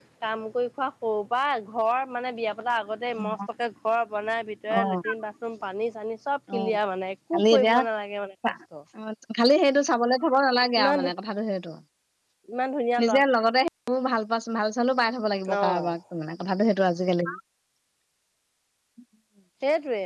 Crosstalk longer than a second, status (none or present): none